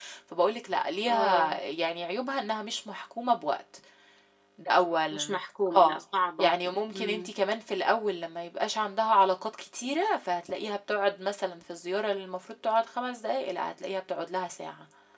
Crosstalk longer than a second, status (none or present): none